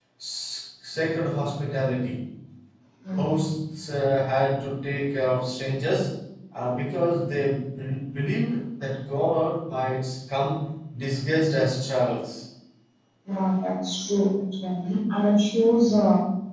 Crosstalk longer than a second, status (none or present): none